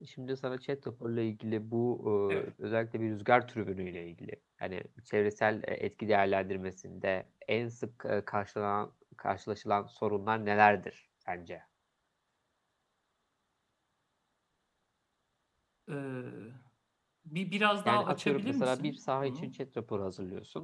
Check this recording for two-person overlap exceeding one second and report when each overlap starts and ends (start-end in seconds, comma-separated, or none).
17.9-19.5